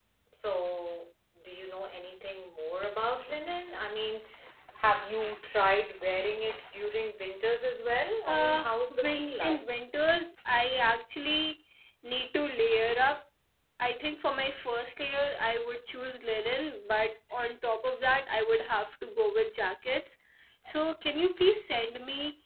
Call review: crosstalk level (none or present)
present